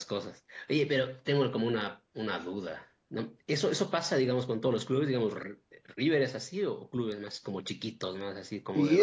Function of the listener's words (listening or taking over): taking over